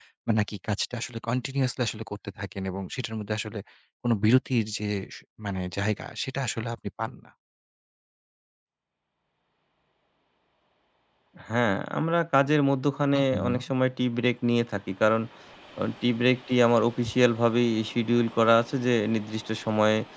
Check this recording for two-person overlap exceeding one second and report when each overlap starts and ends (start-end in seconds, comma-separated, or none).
none